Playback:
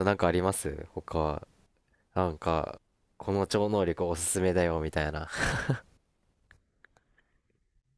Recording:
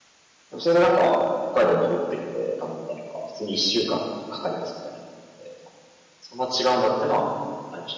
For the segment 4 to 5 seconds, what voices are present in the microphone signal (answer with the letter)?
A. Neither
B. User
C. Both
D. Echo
B